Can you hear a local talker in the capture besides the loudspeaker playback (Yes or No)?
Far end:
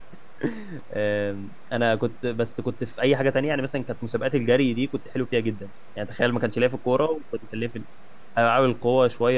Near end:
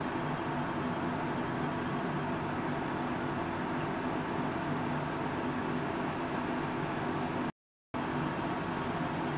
No